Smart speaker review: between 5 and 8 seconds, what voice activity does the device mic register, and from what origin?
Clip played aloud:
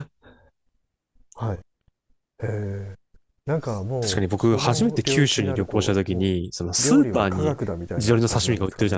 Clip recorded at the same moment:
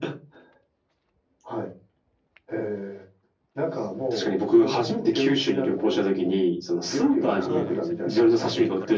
both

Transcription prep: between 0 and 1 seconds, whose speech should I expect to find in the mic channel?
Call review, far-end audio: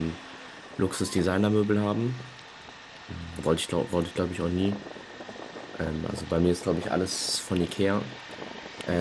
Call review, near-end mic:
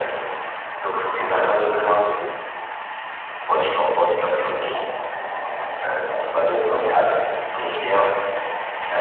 echo only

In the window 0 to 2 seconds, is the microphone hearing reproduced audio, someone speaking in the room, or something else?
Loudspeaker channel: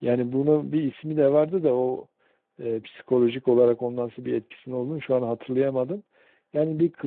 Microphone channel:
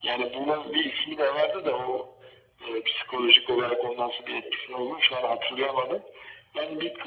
echo only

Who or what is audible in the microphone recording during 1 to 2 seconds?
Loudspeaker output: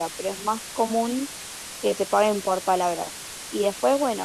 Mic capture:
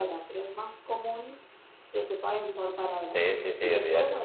echo only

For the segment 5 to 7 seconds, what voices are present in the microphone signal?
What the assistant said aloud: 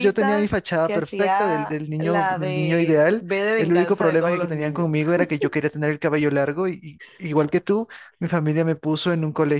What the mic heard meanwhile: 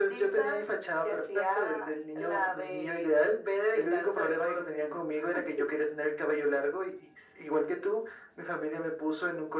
echo only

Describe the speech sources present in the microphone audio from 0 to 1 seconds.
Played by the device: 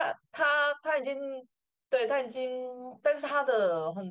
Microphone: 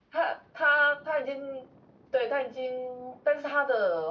echo only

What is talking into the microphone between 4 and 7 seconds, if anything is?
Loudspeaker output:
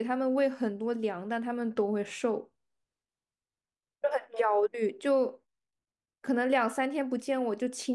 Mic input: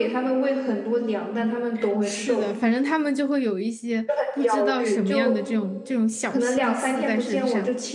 both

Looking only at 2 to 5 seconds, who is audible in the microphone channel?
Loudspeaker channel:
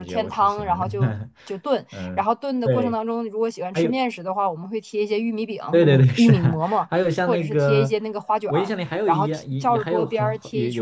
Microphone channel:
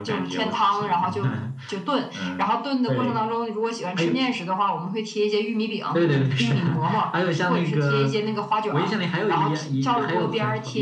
echo only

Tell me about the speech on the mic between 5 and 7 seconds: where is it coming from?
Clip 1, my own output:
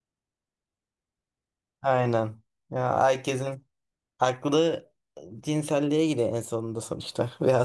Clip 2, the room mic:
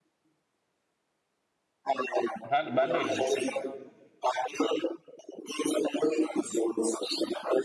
echo only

